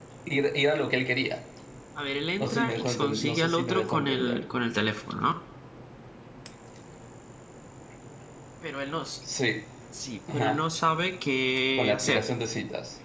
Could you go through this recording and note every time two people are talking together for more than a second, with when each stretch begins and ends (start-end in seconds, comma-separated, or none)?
2.4-4.4